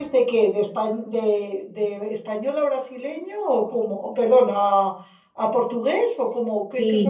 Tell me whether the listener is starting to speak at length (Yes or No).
Yes